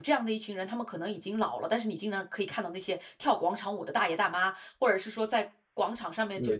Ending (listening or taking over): listening